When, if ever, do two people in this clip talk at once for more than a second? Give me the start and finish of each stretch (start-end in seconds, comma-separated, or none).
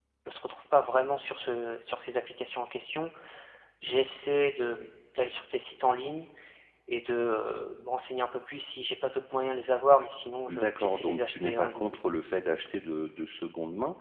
10.5-12.0